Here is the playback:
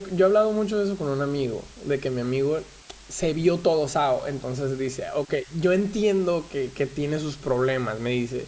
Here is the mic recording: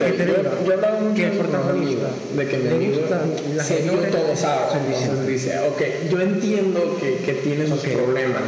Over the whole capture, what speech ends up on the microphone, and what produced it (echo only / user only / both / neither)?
both